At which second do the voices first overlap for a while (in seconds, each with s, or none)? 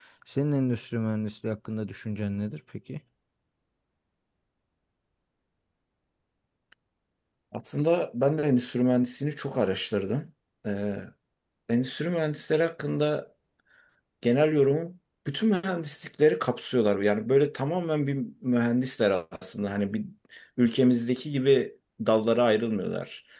none